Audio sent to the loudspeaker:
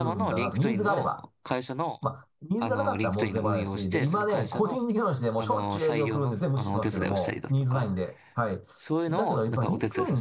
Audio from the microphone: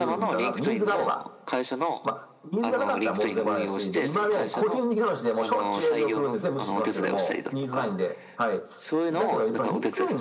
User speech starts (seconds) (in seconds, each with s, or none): none